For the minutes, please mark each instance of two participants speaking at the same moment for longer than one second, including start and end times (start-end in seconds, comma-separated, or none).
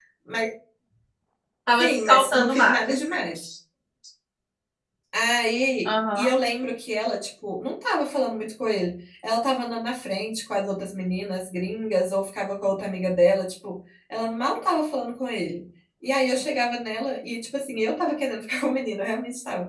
1.7-3.0